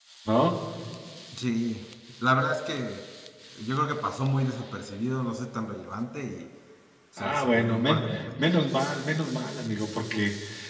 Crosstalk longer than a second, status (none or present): present